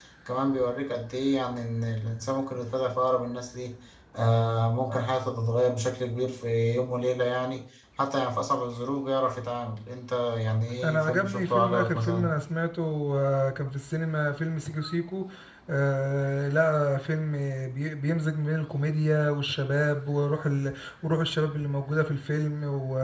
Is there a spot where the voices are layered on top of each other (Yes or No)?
Yes